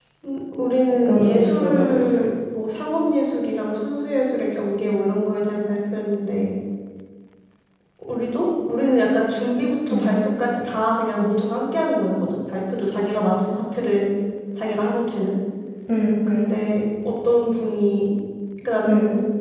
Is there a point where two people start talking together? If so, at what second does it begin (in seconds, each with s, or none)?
0.9 s